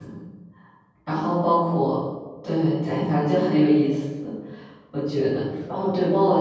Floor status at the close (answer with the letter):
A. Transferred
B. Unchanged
B